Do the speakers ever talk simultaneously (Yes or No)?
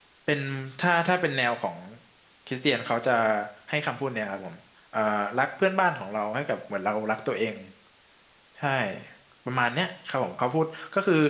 No